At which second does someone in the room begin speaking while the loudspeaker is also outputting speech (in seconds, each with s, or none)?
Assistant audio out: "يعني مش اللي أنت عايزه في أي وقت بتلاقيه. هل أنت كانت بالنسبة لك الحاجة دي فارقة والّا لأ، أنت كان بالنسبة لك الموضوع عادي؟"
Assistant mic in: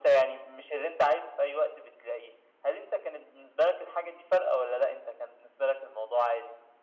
none